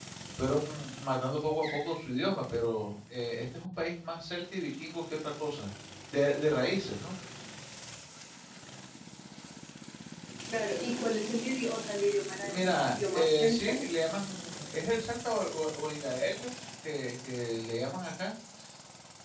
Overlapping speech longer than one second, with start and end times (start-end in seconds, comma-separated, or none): 12.5-13.7